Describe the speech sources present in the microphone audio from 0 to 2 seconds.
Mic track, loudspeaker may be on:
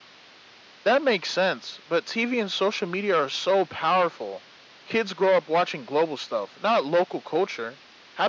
user only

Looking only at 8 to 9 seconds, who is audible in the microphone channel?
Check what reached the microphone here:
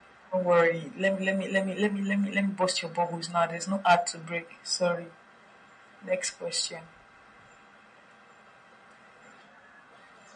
neither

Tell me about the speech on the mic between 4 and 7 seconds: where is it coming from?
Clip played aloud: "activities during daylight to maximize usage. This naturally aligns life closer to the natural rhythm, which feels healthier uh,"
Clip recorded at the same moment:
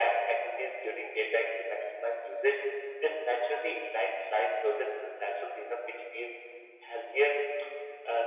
echo only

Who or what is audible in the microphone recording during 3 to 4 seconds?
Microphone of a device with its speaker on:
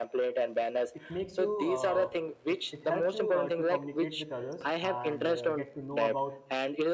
both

